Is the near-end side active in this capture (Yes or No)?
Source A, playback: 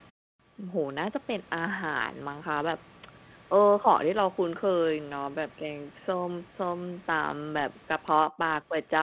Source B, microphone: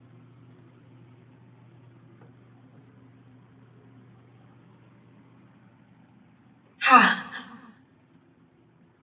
Yes